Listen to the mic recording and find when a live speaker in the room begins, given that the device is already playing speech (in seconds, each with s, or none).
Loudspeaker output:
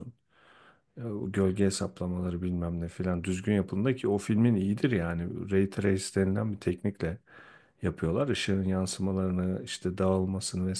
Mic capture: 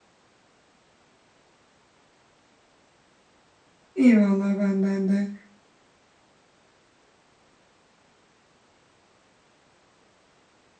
3.9 s